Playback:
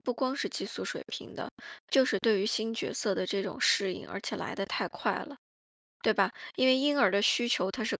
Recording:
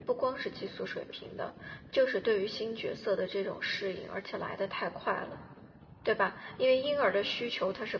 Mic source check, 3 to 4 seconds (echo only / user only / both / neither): echo only